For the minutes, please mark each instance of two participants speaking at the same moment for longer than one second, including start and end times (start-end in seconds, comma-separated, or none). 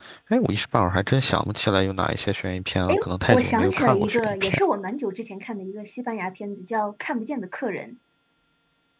2.9-4.7